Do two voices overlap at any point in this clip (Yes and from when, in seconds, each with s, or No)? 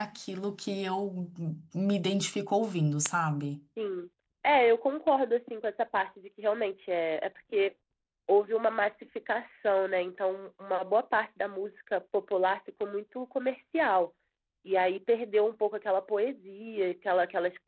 No